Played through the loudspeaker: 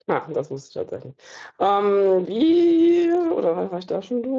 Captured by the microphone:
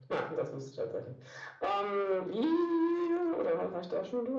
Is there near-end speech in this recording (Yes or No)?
No